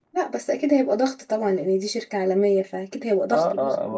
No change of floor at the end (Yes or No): No